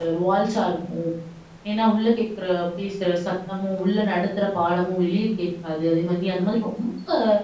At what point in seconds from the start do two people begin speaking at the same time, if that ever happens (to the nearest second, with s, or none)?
none